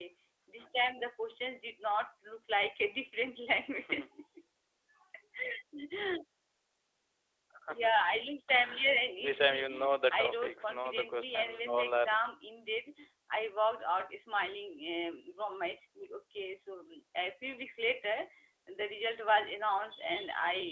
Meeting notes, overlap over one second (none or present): present